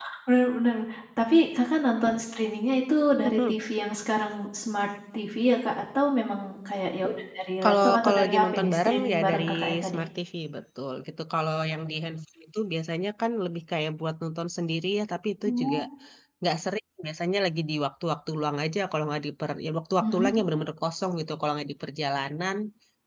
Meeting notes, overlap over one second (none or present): present